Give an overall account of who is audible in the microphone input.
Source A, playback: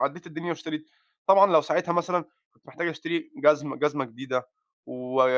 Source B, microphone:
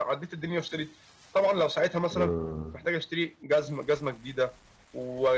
both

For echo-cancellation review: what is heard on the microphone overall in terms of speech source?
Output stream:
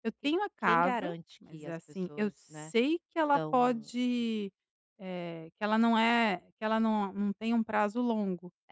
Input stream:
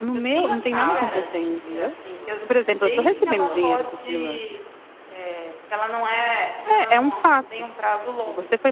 both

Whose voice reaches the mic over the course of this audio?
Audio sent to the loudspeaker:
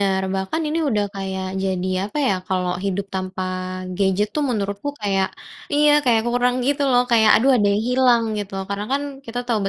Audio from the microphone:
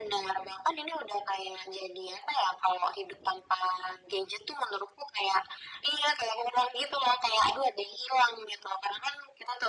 echo only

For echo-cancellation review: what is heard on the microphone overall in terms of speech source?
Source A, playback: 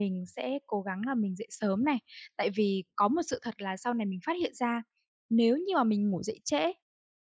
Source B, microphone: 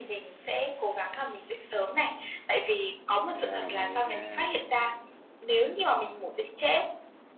both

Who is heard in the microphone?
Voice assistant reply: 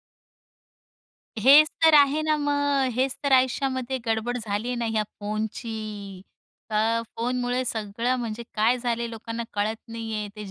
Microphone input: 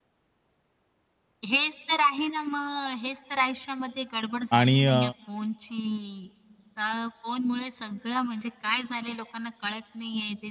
both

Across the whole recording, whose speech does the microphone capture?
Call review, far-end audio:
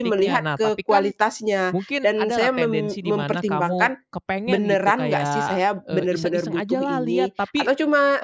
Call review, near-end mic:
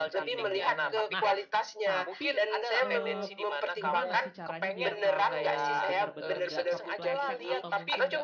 both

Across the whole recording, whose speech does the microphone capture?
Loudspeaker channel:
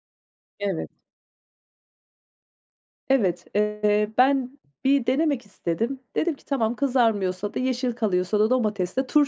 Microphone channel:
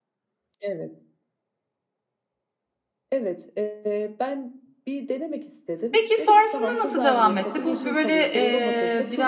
both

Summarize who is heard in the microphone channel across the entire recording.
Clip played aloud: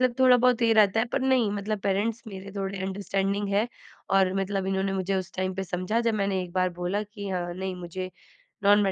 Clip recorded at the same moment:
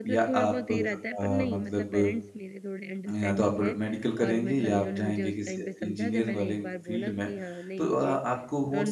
both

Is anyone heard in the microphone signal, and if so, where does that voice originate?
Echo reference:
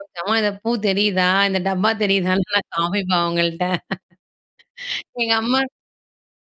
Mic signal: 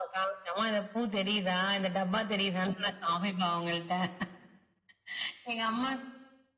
echo only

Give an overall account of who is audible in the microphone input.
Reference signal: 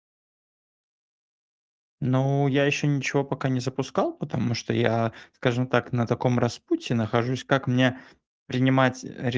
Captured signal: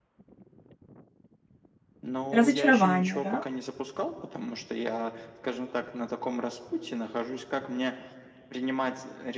both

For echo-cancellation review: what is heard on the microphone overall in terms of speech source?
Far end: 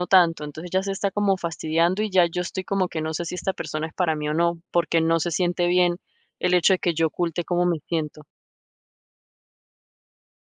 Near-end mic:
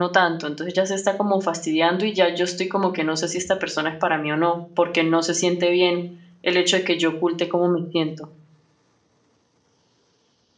echo only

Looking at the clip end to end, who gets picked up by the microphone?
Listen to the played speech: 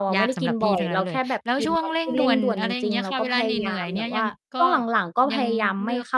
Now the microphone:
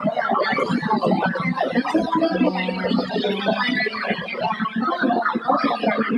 both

